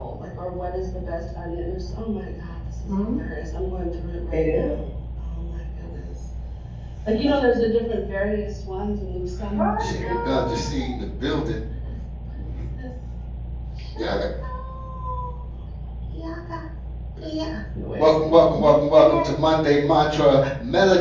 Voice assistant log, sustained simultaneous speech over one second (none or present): present